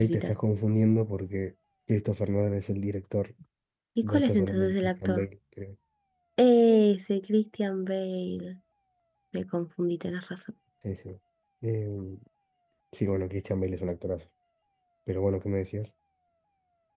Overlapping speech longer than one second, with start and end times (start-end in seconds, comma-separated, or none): 4.0-5.2